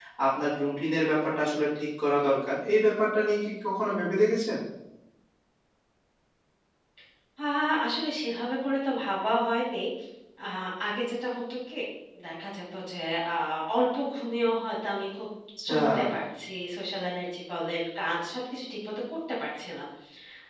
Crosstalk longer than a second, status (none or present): none